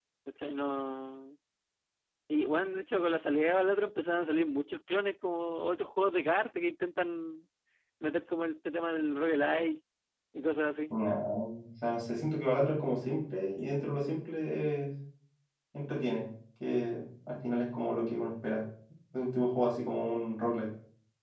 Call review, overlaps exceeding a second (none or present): none